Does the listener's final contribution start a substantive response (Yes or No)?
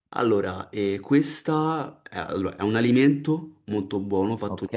No